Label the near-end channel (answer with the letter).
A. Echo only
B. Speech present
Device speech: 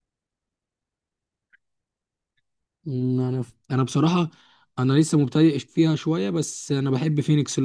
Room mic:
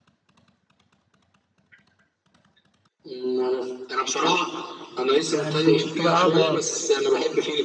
B